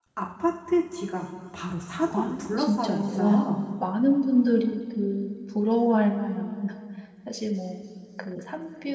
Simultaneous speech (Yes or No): Yes